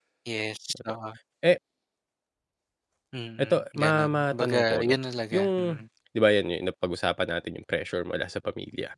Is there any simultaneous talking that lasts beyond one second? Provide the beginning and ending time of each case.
3.4-4.9

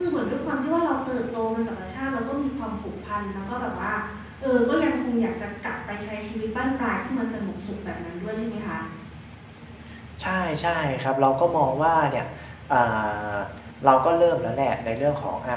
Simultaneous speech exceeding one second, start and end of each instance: none

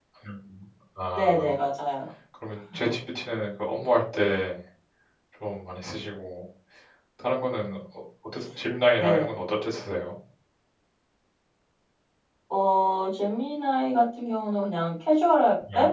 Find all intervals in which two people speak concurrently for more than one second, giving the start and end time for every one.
none

